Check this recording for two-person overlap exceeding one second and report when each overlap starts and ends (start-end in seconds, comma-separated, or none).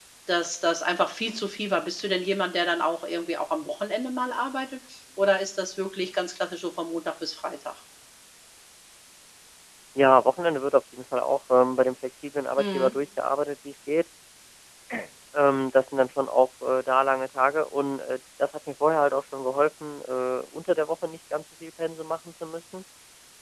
none